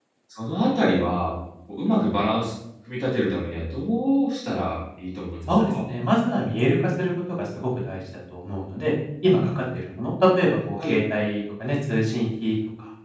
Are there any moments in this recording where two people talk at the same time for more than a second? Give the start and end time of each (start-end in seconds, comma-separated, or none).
none